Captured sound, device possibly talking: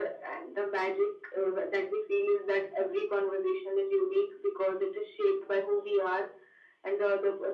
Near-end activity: none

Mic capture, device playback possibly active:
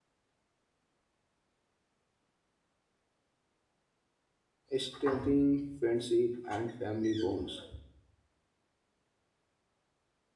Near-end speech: present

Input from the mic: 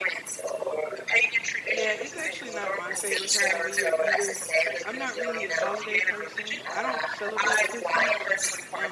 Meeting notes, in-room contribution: present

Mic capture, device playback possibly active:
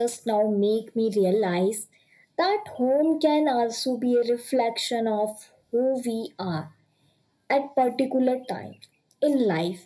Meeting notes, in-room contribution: none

